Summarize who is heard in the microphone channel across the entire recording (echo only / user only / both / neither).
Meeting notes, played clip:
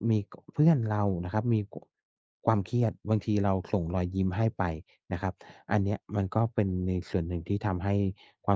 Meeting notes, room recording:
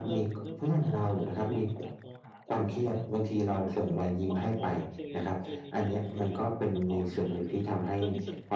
both